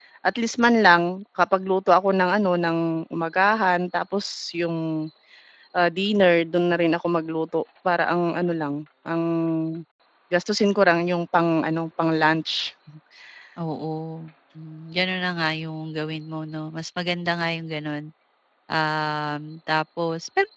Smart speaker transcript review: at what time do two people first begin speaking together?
none

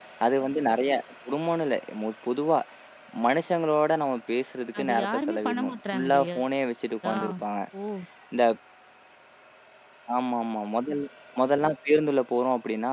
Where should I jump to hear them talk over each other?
4.8 s

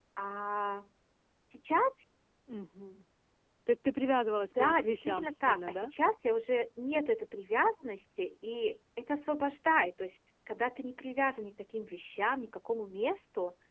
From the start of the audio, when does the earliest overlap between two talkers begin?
4.5 s

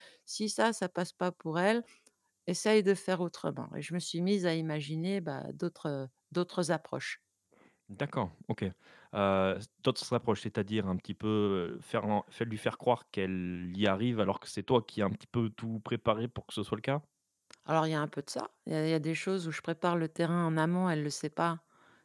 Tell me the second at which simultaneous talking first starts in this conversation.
none

